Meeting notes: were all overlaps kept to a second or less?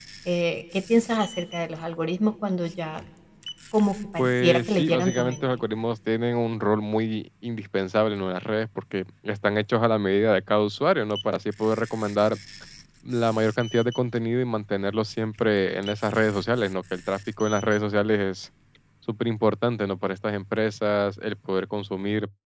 No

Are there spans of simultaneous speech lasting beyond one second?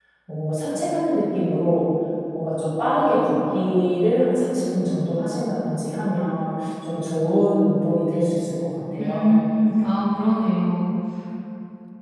No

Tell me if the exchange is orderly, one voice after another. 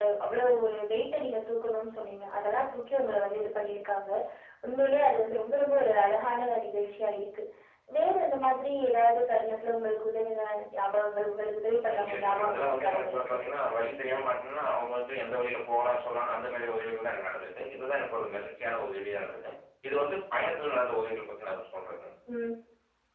No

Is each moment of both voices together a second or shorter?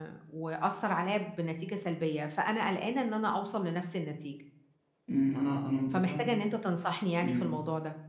Yes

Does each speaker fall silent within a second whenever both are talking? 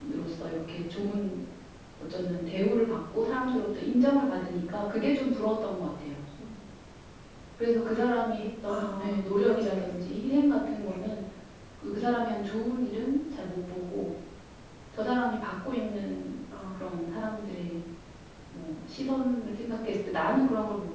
No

